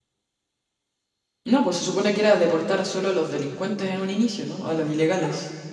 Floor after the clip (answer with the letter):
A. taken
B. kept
A